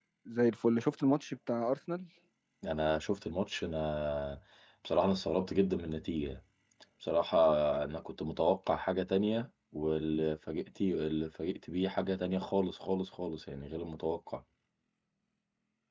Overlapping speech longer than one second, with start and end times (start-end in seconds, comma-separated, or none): none